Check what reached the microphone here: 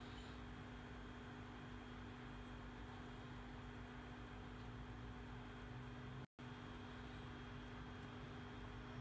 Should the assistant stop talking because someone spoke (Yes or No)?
No